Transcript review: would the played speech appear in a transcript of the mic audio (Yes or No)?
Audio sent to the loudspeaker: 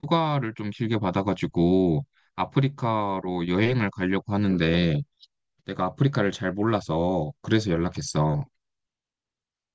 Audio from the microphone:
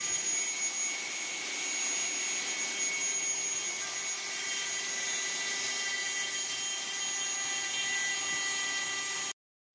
No